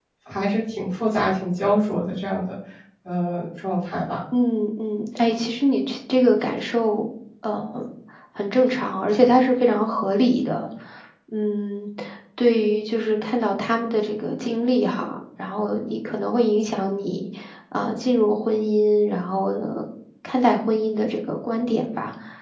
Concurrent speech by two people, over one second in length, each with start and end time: none

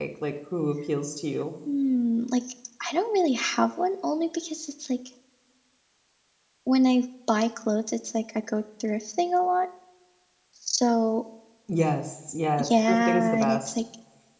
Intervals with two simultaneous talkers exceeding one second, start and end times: 12.6-13.8

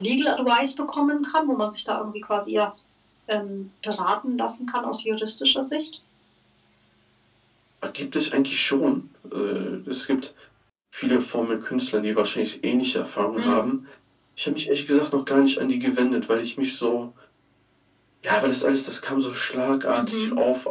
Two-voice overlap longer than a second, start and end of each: none

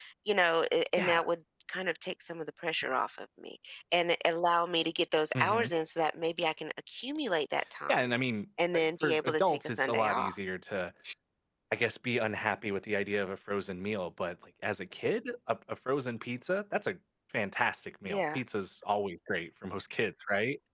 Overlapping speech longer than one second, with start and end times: 8.7-10.3

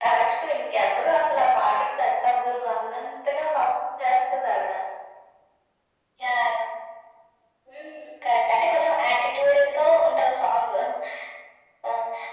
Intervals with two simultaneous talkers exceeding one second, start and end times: none

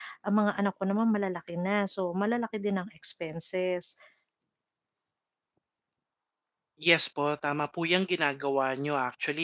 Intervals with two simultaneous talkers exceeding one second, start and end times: none

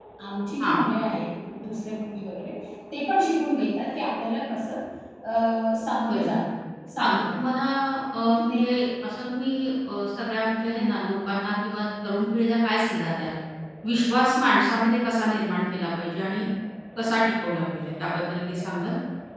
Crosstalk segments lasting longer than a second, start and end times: none

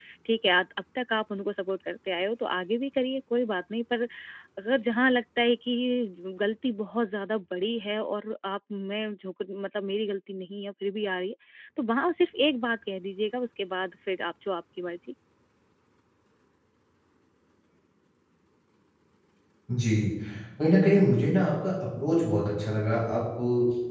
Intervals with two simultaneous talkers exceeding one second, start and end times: none

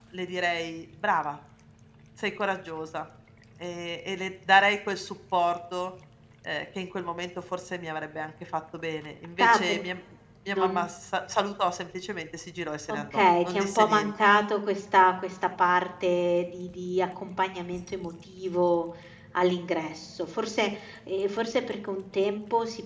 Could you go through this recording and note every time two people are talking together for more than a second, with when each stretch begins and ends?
12.9-14.1

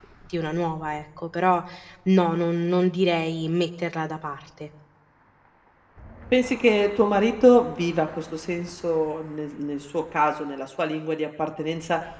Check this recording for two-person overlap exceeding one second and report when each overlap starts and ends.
none

